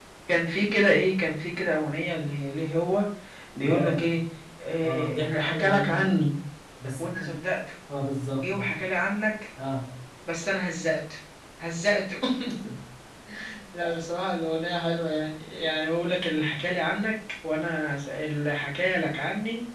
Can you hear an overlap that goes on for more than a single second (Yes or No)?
Yes